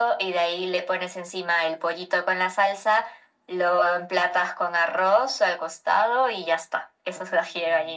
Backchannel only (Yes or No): No